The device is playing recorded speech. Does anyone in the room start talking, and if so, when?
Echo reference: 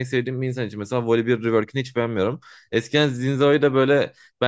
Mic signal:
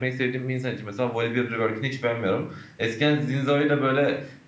none

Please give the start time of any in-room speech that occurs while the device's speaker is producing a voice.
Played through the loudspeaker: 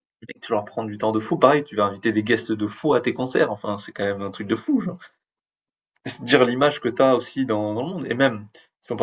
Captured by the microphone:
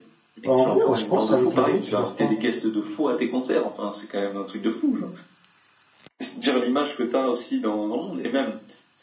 0.4 s

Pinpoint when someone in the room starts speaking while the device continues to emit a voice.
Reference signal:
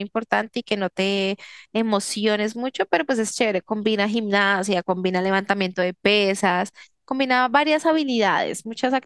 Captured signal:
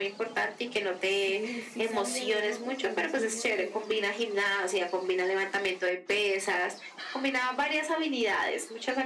1.0 s

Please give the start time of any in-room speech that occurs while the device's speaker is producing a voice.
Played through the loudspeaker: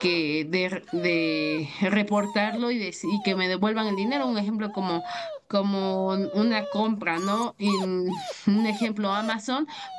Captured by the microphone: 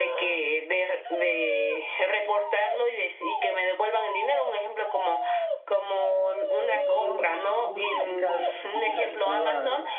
6.7 s

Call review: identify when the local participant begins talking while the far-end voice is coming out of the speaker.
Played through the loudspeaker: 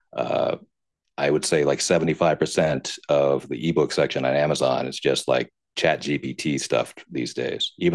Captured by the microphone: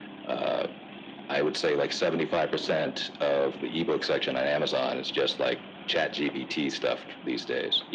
none

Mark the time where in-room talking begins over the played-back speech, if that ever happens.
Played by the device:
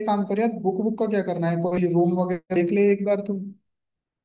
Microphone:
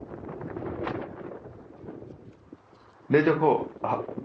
3.1 s

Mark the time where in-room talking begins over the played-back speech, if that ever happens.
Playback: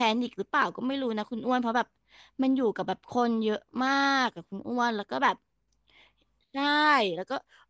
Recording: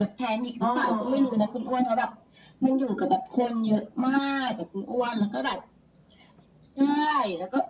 0.6 s

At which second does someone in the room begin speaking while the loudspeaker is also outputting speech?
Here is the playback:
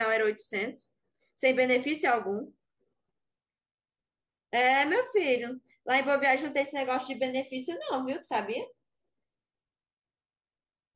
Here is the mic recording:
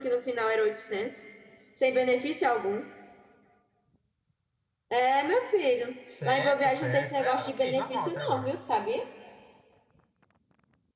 6.0 s

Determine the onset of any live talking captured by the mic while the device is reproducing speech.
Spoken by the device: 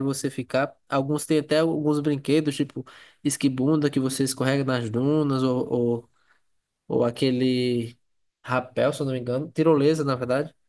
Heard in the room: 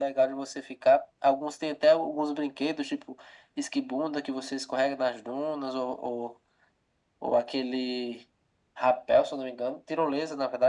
none

